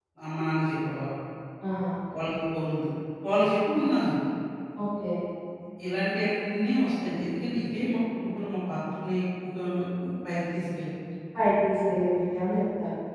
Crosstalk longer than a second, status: none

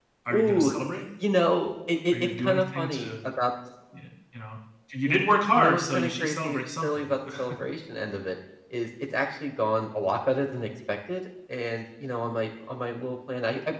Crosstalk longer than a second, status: present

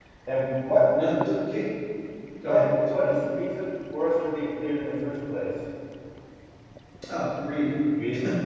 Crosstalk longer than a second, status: none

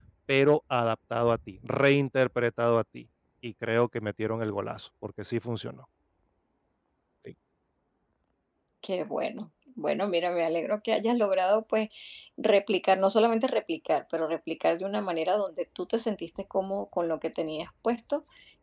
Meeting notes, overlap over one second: none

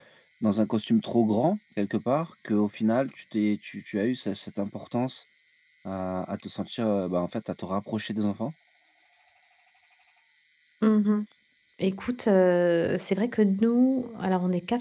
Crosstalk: none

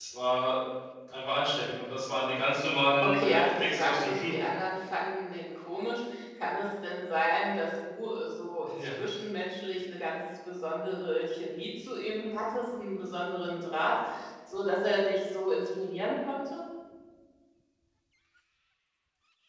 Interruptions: present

